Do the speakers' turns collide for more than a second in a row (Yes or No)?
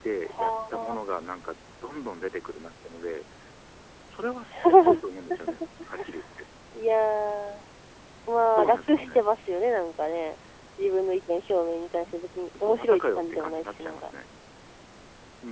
Yes